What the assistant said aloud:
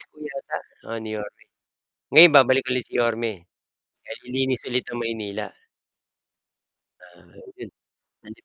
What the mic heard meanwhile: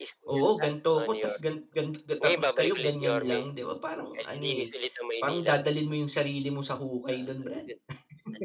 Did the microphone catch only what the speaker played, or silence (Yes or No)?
No